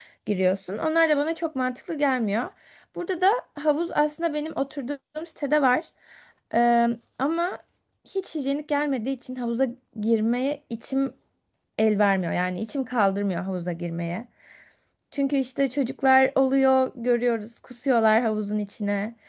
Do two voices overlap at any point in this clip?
No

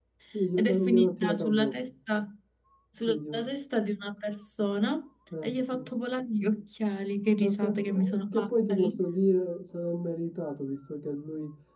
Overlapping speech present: Yes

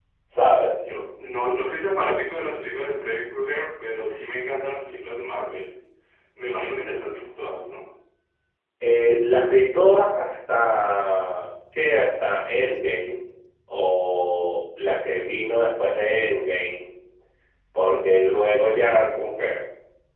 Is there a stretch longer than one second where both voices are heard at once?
No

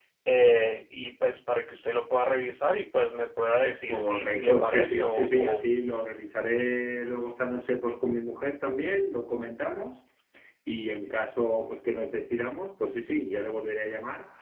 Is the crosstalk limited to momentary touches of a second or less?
No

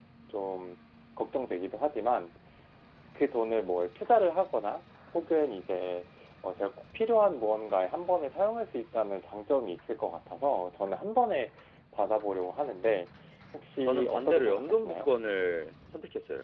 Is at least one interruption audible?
Yes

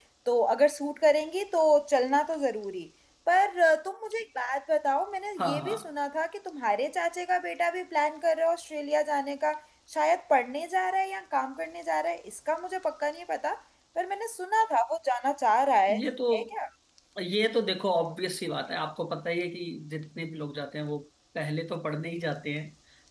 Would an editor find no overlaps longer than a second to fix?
Yes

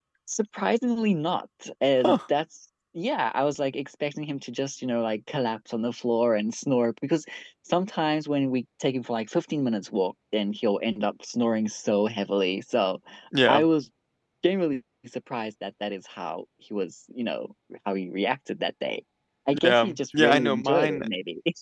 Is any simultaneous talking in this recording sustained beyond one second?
Yes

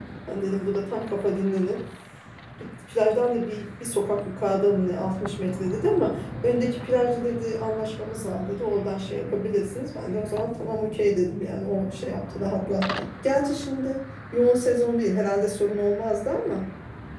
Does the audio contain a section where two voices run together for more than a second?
No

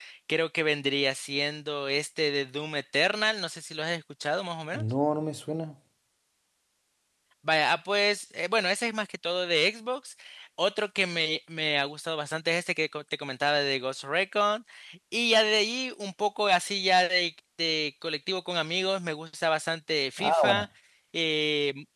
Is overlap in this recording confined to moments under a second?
Yes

